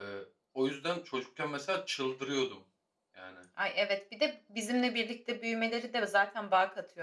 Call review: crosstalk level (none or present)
none